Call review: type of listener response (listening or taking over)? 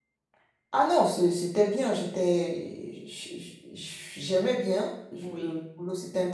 listening